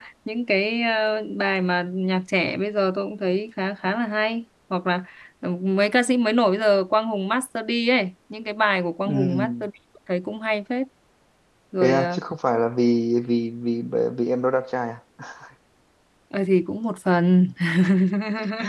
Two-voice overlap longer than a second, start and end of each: none

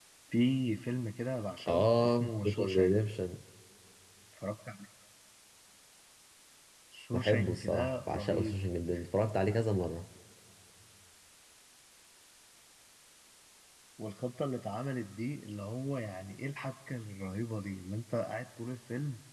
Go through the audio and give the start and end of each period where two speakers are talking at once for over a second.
1.7-3.0, 7.1-8.6

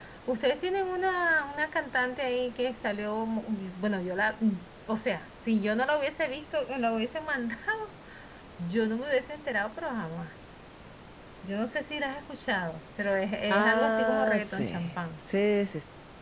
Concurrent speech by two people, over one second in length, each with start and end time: 13.5-14.8

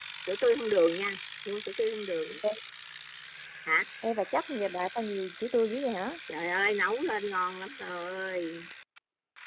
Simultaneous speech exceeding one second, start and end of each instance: none

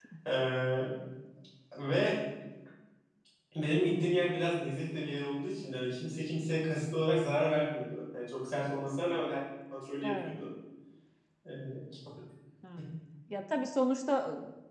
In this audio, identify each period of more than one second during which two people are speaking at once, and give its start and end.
none

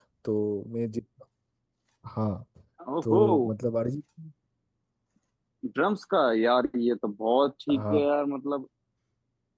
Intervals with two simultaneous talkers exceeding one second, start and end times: none

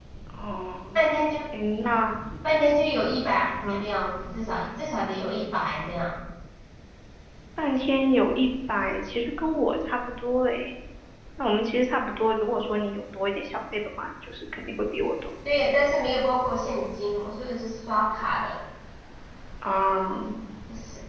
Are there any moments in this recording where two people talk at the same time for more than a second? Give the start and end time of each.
none

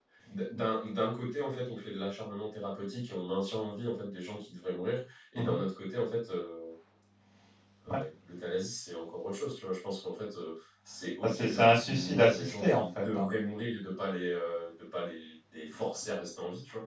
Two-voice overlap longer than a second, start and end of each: 11.2-13.3

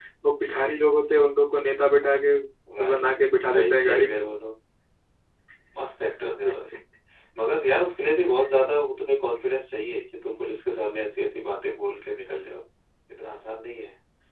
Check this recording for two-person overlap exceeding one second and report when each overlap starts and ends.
2.8-4.1

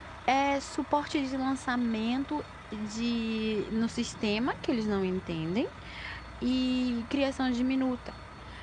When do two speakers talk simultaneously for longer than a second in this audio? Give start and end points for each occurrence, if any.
none

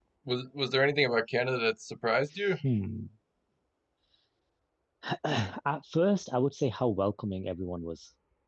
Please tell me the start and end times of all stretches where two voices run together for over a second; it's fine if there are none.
none

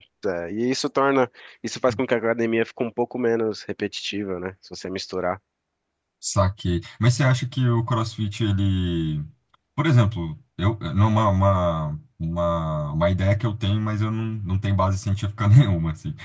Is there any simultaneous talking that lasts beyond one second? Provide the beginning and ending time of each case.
none

